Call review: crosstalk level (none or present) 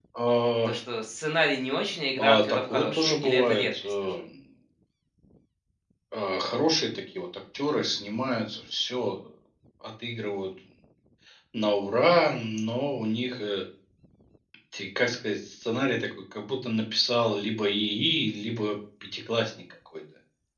present